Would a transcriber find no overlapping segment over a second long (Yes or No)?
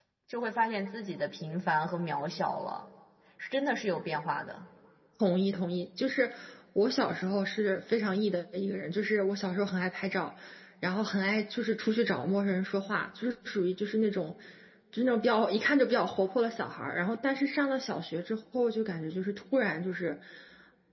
Yes